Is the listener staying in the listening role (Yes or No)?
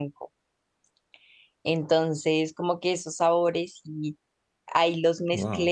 Yes